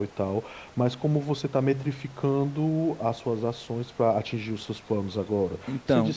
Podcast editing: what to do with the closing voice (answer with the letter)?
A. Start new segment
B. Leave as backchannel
B